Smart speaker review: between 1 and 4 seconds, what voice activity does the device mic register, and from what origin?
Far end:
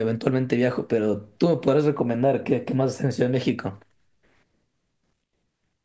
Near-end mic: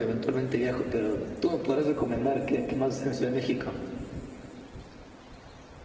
echo only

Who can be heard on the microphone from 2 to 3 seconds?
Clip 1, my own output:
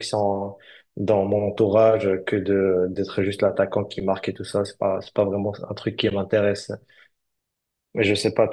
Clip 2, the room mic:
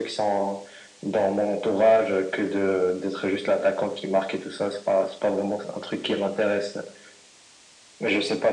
echo only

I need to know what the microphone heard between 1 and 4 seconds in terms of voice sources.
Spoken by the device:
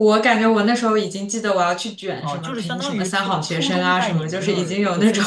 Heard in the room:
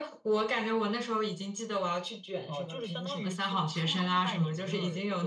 echo only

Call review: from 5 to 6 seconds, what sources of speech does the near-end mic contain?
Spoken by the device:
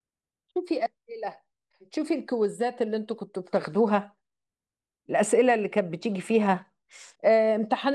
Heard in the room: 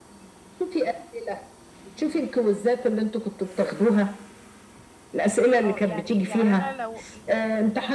both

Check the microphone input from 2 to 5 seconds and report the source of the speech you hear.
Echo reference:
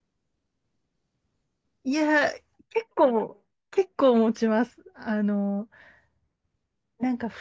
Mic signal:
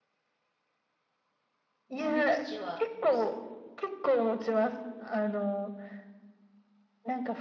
both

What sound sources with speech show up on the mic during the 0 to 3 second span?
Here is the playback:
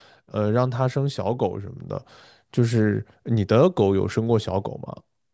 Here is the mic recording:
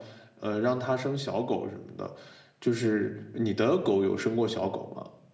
echo only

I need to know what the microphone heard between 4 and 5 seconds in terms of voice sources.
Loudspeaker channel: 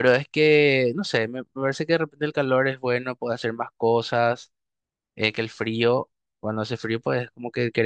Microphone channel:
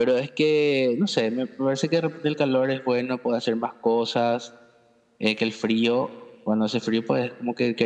echo only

